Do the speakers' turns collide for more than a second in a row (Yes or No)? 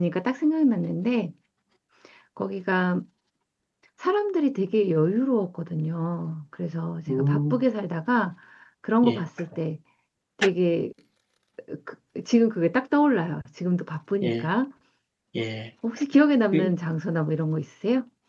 No